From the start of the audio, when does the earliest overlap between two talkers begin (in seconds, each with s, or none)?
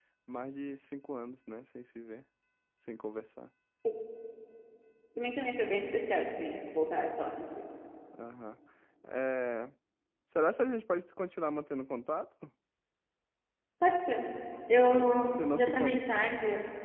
14.7 s